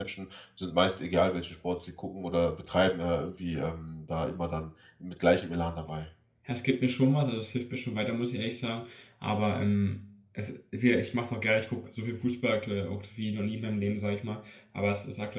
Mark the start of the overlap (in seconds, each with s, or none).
none